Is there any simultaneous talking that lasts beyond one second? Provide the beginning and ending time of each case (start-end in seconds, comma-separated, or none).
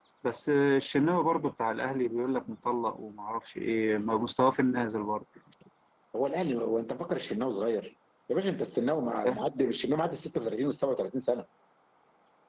none